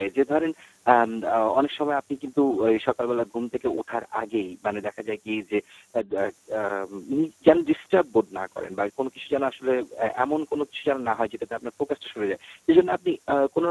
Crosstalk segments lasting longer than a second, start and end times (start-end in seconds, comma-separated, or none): none